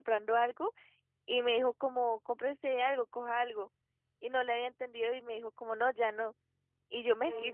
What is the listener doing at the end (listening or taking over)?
listening